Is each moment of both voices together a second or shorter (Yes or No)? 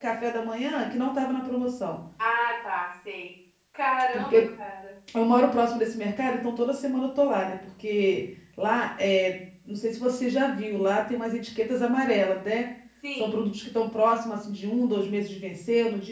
Yes